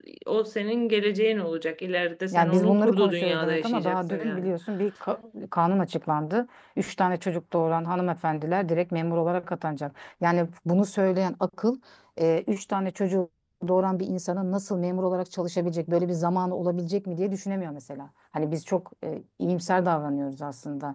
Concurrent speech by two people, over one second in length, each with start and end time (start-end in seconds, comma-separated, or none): 2.3-4.5